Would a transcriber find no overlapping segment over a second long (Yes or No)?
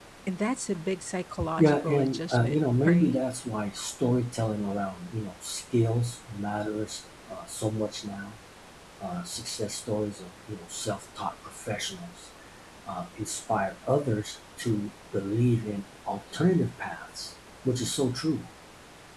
No